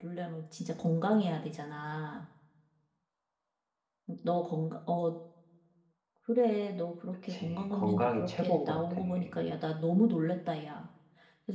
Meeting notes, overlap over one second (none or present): present